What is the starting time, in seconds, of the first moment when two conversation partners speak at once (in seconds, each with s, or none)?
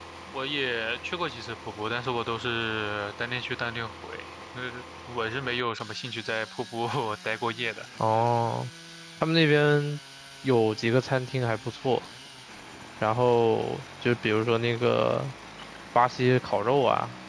none